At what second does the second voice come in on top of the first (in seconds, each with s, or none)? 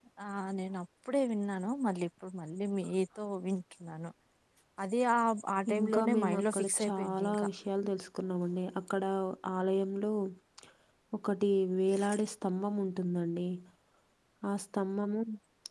5.8 s